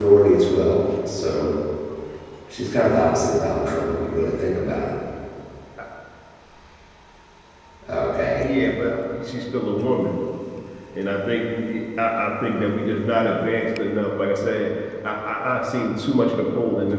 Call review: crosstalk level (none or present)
none